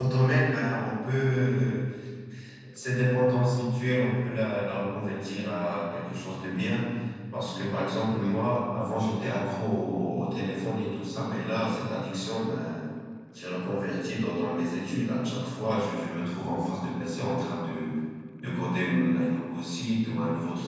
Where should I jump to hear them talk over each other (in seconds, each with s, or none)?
none